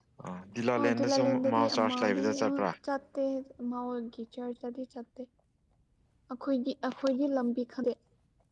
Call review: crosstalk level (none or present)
present